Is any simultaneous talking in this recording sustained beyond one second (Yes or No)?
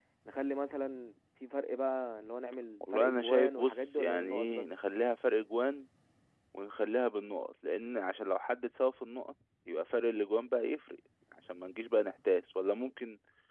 Yes